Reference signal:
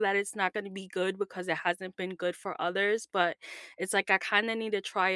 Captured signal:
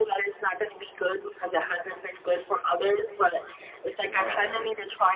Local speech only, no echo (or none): Right.